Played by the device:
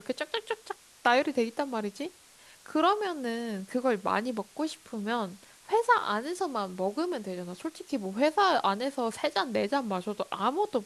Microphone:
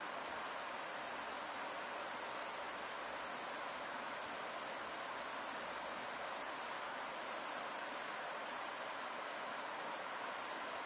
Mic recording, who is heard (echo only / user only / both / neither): neither